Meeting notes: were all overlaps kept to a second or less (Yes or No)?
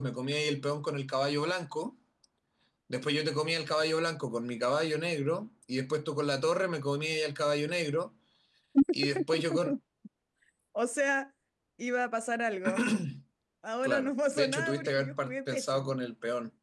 No